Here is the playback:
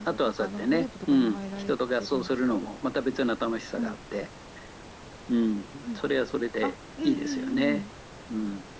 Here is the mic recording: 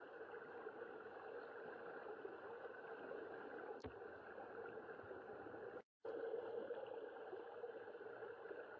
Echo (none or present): none